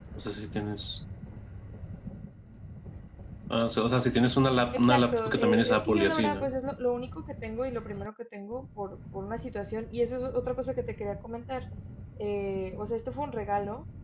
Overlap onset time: 4.7 s

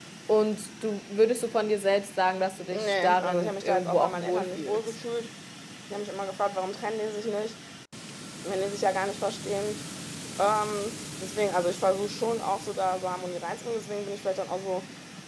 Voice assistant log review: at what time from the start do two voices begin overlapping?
2.7 s

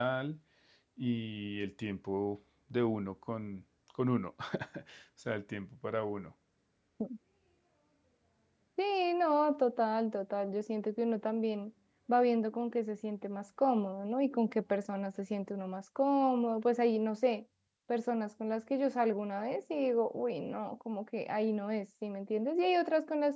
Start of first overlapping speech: none

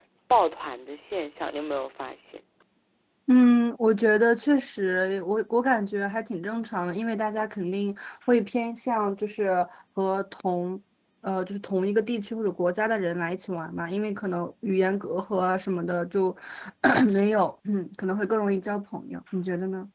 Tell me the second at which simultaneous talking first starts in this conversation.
none

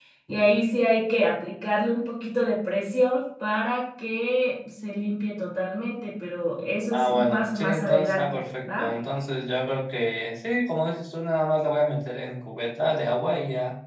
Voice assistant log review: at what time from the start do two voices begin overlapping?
6.9 s

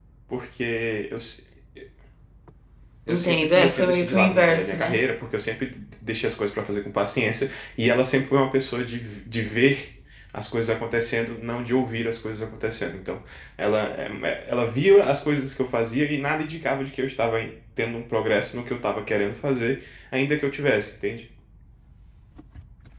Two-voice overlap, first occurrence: 3.1 s

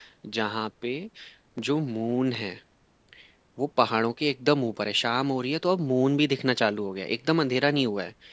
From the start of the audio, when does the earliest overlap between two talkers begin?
none

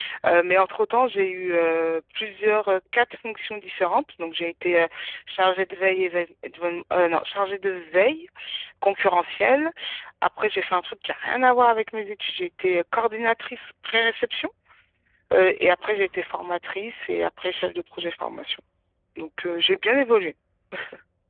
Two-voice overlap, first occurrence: none

